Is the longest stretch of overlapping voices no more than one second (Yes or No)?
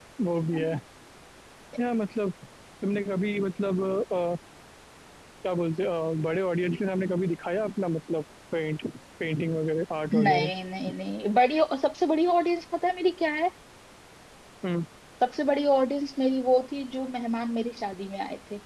Yes